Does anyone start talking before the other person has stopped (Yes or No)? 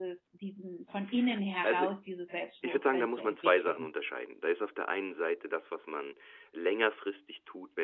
Yes